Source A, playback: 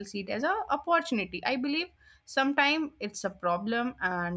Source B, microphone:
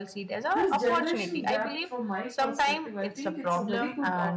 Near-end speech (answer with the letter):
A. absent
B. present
B